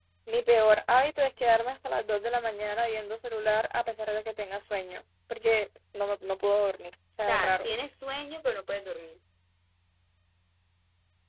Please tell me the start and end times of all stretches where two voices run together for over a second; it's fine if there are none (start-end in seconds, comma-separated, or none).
none